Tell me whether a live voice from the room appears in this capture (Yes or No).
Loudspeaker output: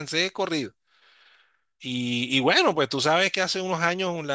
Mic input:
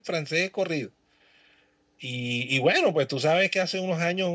No